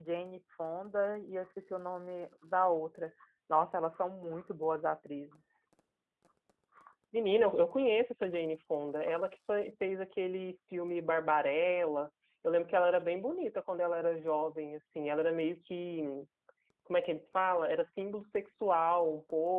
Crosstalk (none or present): none